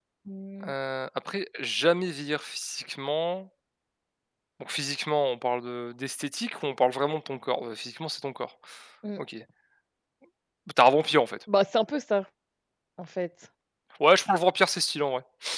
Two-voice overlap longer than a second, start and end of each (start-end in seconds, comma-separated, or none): none